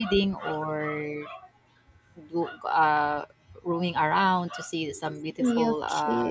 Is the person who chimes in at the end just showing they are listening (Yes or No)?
Yes